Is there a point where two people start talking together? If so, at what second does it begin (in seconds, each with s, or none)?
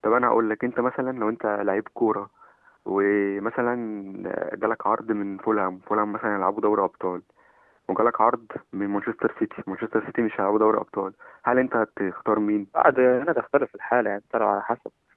none